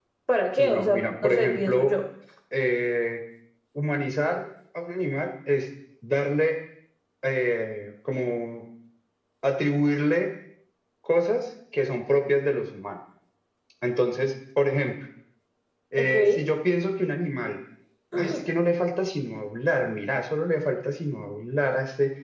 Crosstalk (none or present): present